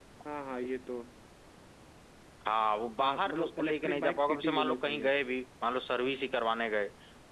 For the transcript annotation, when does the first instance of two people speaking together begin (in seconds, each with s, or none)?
3.0 s